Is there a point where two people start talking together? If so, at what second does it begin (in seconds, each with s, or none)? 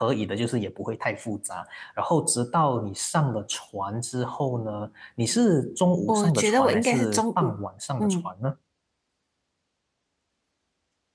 6.1 s